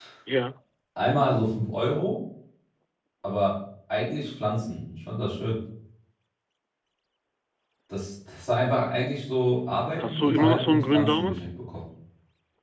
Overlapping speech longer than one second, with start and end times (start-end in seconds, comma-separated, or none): 10.0-11.4